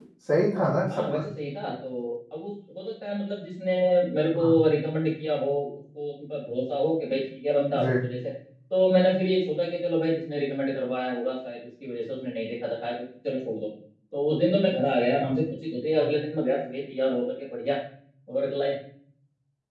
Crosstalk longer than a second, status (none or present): none